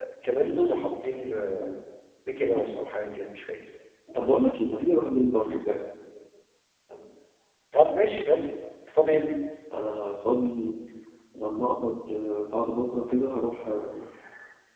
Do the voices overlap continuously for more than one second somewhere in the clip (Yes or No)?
No